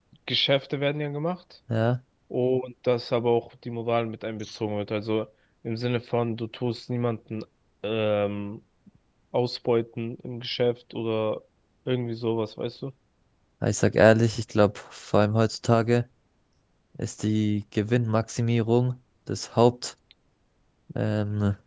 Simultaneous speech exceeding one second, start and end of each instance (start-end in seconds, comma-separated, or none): none